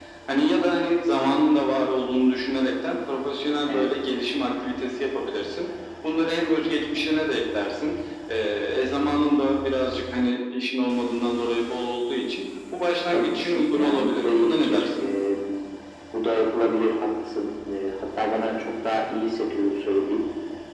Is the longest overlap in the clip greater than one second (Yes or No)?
Yes